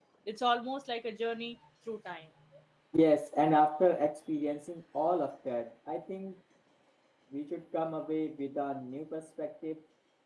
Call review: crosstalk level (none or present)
none